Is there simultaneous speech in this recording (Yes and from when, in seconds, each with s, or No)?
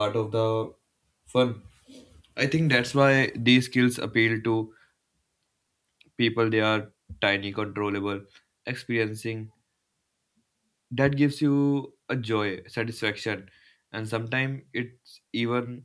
No